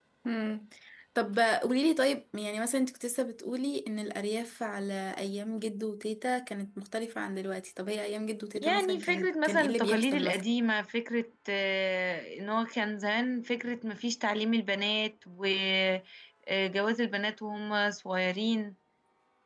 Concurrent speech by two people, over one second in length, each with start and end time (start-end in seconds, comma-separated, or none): 8.6-10.4